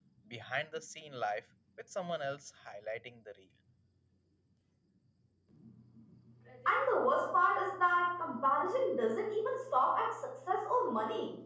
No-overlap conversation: Yes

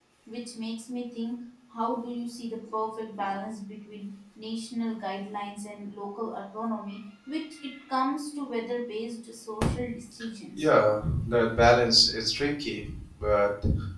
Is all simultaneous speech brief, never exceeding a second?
Yes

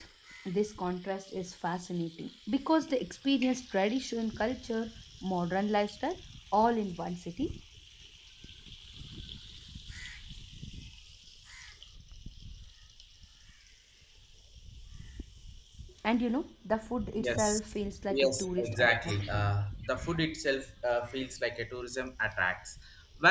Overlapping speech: Yes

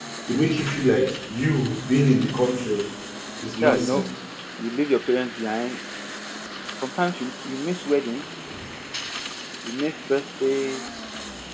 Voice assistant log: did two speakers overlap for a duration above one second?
No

